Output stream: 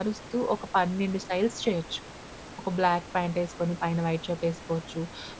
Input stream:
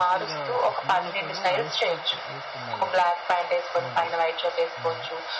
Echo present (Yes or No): Yes